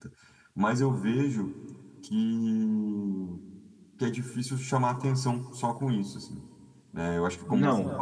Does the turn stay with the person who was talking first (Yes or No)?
Yes